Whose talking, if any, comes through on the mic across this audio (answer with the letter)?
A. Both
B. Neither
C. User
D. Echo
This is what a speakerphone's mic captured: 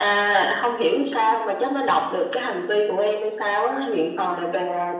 D